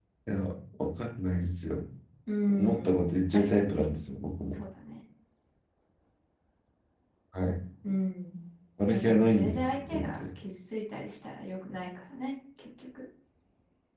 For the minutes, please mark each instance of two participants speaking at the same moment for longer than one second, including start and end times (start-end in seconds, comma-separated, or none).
2.5-3.9, 8.9-10.2